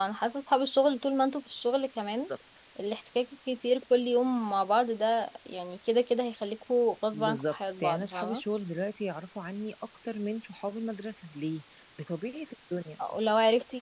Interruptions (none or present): present